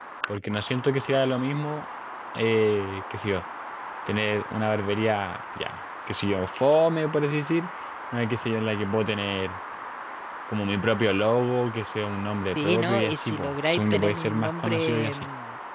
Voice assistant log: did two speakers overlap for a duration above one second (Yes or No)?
Yes